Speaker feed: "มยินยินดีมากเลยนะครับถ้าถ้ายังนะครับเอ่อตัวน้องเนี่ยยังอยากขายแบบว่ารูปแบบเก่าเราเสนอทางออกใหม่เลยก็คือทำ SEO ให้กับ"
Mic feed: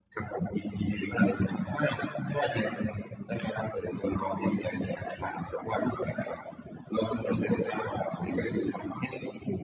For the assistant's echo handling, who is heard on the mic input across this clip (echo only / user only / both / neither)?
echo only